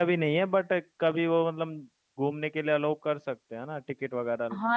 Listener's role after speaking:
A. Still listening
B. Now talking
B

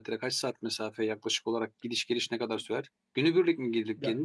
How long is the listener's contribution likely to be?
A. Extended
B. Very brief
B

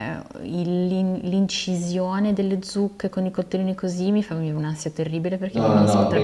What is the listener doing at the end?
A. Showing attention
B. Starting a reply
B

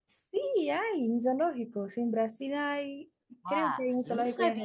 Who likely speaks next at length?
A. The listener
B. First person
A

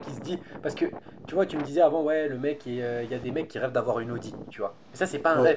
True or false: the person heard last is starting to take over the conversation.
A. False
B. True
A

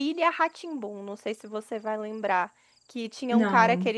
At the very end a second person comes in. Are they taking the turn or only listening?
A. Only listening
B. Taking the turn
A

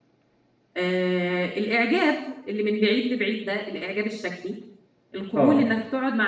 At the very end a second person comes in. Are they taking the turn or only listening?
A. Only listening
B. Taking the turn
A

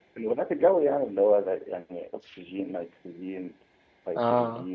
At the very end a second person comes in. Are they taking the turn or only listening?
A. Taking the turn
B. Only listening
A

